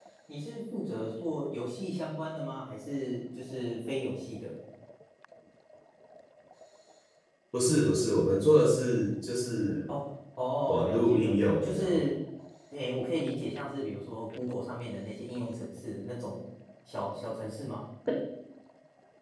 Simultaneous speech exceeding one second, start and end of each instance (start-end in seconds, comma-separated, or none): 10.7-12.0